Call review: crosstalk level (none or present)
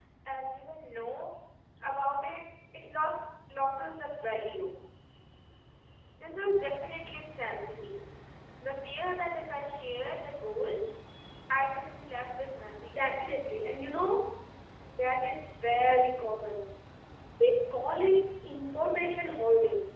none